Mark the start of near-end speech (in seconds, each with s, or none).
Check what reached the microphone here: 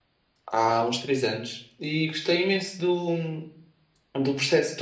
0.5 s